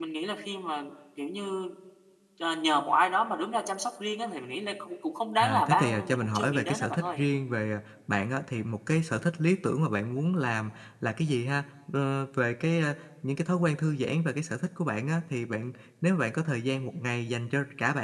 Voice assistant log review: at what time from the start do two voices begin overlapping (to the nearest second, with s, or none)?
5 s